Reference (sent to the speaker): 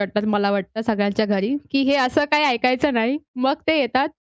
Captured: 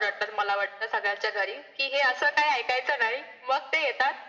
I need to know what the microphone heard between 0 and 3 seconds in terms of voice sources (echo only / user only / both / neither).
echo only